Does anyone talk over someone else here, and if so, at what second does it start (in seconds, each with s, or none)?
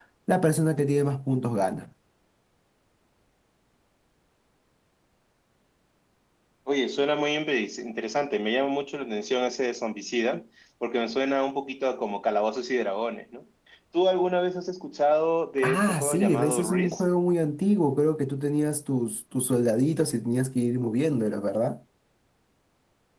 15.6 s